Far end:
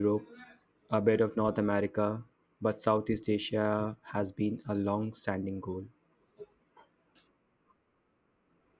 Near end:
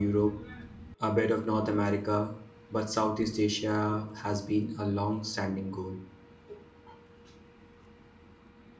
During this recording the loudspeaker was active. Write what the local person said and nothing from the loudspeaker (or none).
none